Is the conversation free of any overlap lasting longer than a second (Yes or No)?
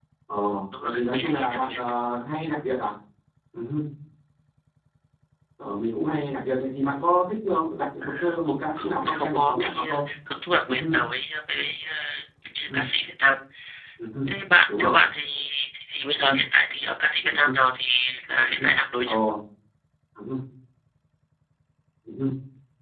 No